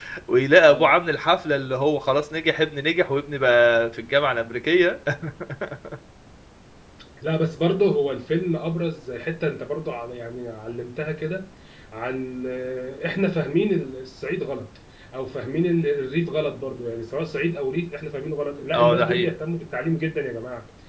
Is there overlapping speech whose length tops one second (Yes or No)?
No